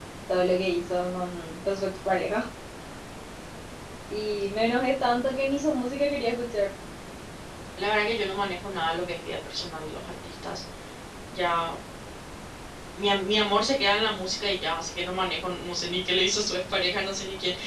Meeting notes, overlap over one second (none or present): none